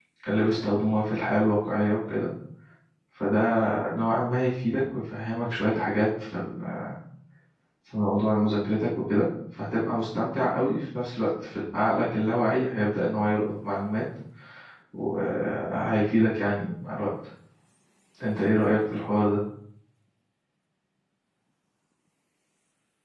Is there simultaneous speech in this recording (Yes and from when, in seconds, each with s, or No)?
No